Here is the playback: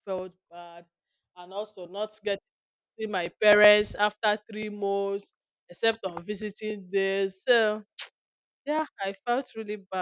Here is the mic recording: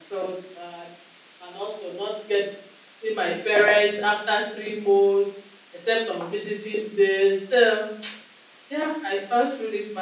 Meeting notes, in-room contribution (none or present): none